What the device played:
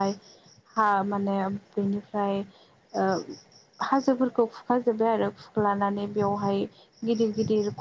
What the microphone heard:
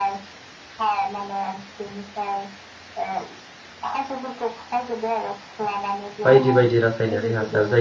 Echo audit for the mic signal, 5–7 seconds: both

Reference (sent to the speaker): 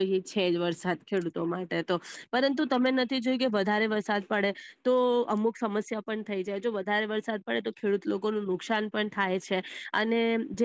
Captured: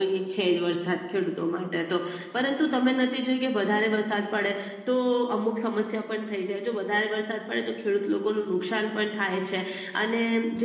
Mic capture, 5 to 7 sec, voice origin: echo only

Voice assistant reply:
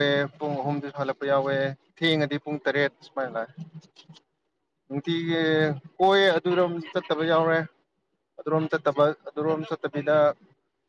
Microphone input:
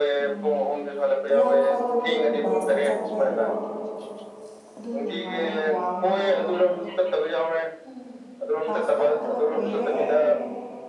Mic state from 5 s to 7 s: both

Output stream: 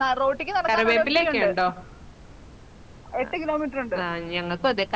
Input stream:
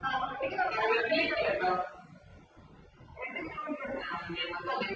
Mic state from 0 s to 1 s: echo only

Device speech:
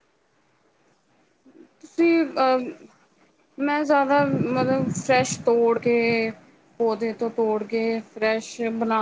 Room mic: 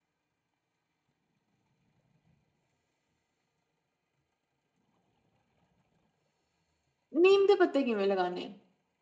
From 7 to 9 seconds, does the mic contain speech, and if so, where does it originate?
user only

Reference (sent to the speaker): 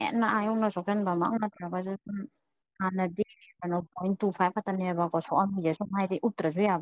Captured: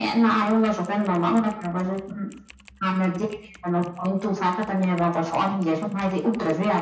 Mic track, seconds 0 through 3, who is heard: echo only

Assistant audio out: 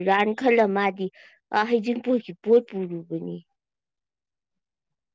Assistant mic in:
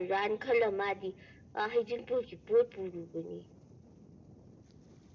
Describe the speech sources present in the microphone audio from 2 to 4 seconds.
echo only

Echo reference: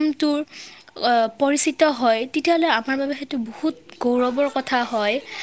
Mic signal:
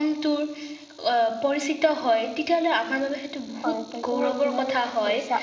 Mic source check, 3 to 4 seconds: both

